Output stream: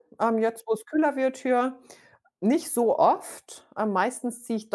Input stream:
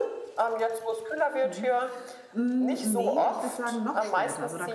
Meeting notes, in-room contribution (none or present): present